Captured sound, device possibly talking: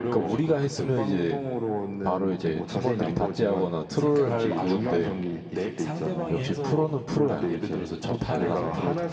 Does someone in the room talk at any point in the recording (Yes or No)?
Yes